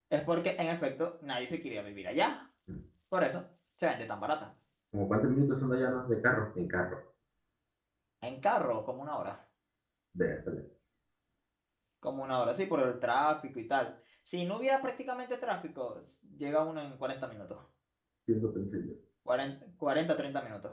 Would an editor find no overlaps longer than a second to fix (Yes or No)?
Yes